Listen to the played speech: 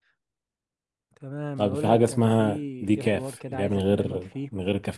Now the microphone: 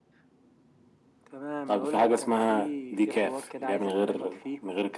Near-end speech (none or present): none